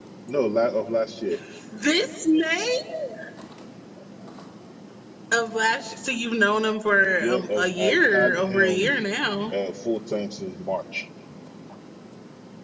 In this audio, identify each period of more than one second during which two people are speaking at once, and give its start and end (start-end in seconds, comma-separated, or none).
7.2-8.9